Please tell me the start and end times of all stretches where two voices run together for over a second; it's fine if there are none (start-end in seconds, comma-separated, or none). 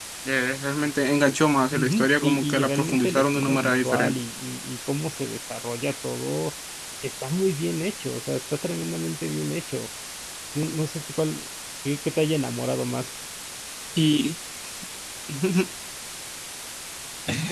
1.7-4.2